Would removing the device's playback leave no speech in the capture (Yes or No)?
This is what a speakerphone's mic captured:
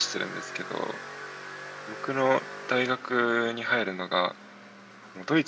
No